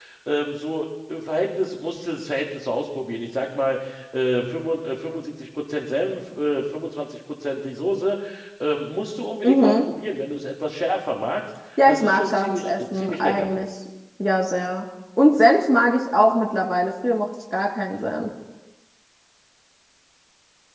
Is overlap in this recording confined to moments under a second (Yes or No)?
No